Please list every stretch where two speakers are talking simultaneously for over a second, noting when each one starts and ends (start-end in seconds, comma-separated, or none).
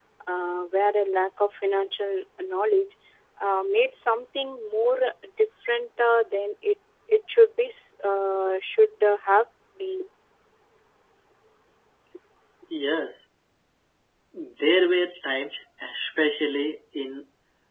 none